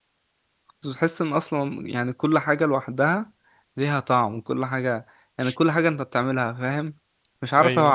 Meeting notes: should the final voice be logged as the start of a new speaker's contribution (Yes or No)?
No